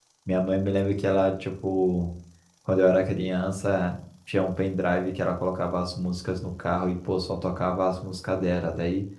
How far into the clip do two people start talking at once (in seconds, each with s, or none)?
none